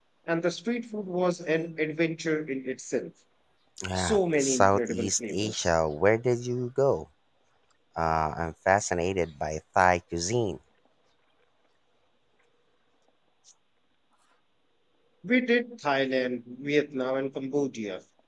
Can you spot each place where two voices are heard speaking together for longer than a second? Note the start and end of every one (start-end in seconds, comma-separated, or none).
4.0-5.7